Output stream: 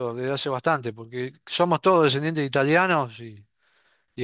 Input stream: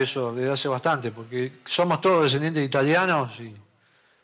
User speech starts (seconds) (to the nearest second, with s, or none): none